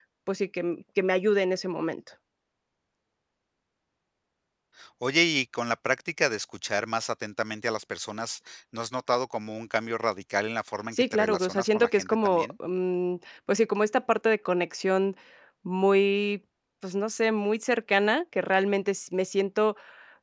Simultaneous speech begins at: 11 s

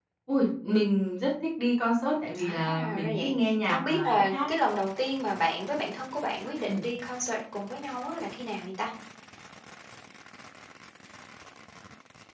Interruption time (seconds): 2 s

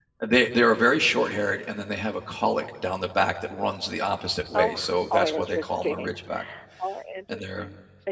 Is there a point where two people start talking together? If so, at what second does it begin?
5 s

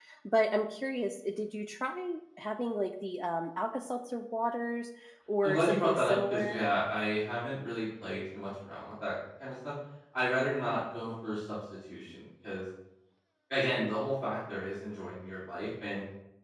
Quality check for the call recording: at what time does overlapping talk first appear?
5 s

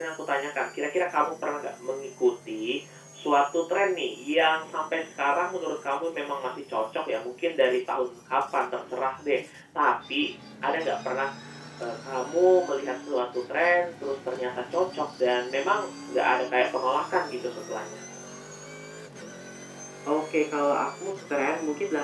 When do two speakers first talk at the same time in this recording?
none

